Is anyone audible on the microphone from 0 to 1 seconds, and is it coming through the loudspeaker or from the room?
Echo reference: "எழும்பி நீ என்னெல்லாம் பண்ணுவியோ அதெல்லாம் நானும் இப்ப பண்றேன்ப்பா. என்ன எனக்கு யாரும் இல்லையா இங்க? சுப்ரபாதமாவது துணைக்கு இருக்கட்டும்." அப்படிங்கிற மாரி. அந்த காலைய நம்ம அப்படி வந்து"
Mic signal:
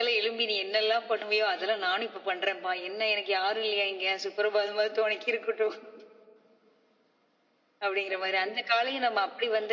echo only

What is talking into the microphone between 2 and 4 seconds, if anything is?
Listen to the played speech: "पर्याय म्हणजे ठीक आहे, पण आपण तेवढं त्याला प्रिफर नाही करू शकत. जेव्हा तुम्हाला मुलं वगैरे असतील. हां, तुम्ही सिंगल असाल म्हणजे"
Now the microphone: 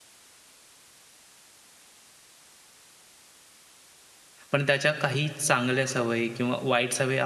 neither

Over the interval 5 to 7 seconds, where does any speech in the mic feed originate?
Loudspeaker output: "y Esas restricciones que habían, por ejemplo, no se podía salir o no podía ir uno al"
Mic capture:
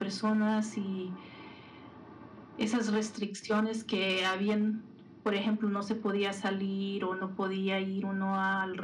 echo only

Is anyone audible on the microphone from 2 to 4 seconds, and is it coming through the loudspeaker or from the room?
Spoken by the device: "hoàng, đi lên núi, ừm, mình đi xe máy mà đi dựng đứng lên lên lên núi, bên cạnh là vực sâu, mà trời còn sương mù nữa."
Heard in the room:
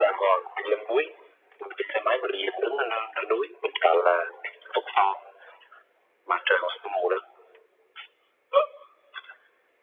echo only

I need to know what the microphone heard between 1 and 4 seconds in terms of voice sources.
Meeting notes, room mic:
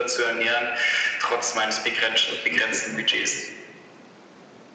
both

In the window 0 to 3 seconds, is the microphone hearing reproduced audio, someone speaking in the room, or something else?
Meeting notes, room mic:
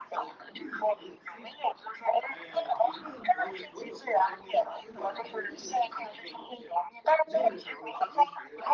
both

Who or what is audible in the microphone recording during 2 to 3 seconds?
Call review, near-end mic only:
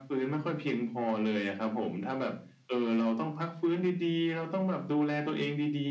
echo only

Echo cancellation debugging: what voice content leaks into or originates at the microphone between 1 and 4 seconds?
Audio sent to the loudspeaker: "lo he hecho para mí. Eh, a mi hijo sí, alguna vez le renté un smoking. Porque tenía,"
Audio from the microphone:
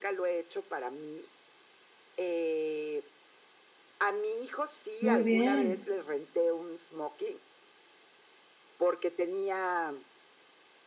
echo only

